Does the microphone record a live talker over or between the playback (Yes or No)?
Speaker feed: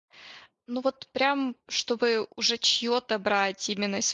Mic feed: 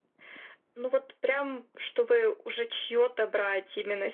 No